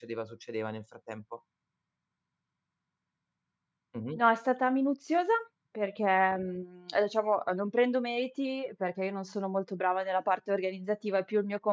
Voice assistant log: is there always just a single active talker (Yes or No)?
Yes